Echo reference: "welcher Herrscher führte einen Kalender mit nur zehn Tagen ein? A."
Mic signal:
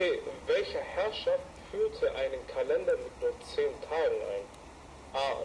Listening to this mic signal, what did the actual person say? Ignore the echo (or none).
none